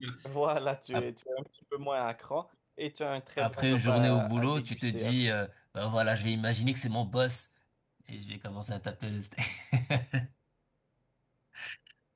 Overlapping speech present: Yes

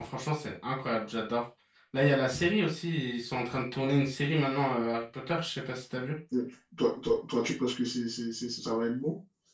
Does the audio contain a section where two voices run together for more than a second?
No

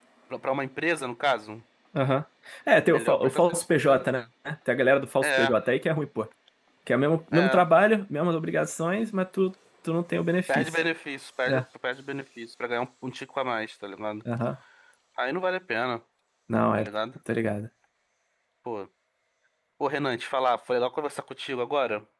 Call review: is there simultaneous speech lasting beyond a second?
Yes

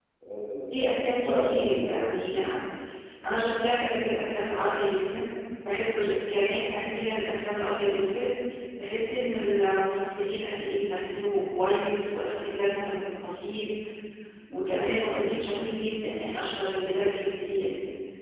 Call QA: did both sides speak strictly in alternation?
No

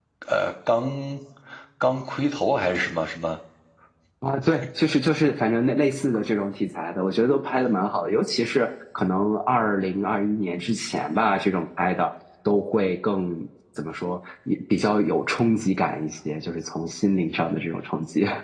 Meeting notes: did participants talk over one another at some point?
No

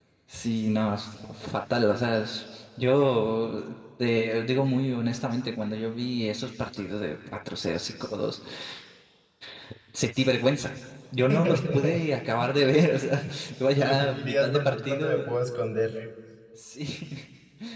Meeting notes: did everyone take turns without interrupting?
No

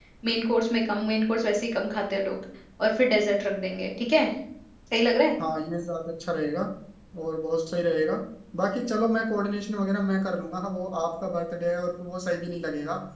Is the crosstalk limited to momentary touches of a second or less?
Yes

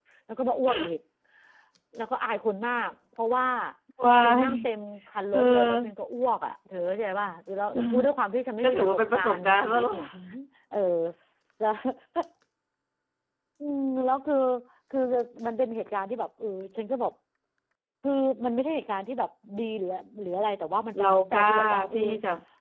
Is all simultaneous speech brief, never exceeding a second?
No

